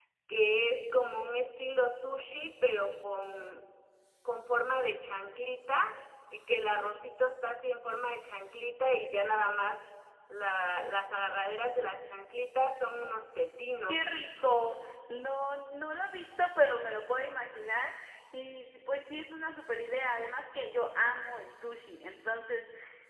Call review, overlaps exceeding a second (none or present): none